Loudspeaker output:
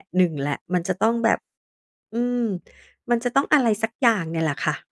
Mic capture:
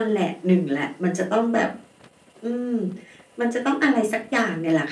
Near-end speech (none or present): none